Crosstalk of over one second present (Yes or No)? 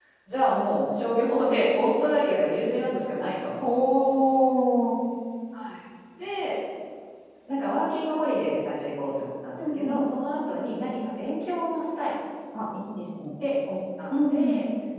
No